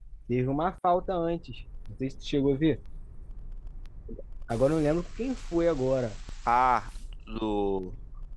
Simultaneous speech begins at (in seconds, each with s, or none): none